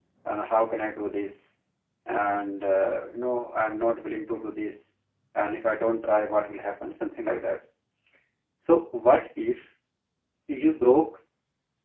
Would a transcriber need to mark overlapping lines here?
No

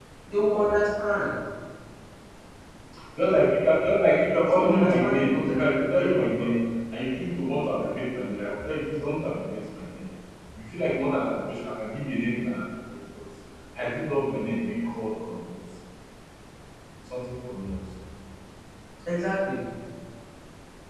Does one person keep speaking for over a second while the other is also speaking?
Yes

